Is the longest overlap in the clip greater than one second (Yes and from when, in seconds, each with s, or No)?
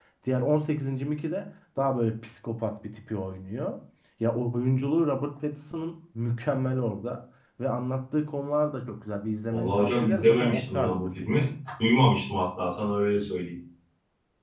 Yes, from 9.5 s